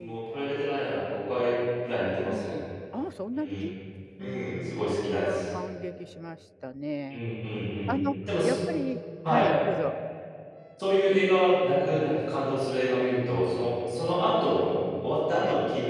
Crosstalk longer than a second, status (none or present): present